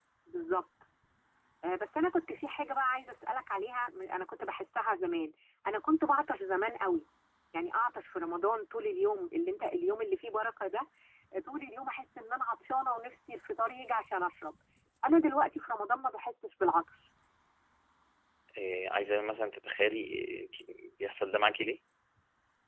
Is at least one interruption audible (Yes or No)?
No